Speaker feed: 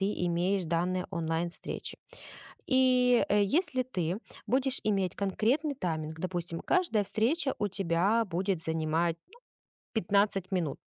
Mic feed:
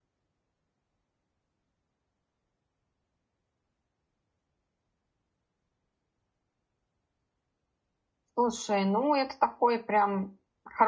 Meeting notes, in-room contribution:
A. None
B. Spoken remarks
B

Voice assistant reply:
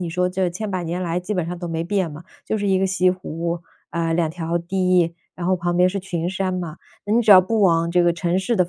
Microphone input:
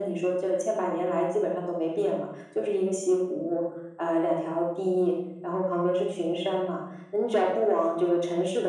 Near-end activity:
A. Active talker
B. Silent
B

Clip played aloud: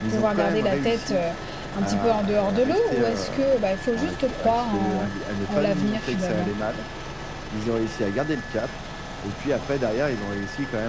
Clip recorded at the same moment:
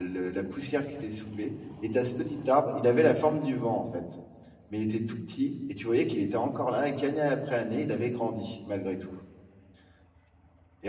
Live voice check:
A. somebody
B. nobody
A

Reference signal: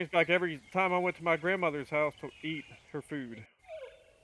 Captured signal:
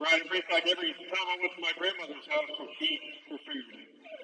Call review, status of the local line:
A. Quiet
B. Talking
A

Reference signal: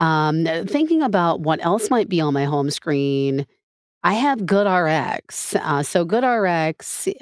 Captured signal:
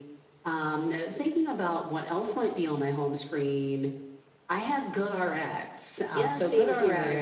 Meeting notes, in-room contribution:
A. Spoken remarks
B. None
A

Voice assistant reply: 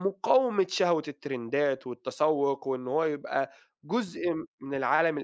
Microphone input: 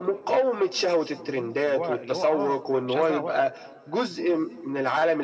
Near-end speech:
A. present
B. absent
A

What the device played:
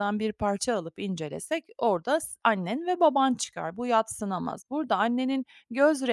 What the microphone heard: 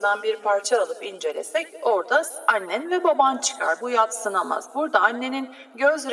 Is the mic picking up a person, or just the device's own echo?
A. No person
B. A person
A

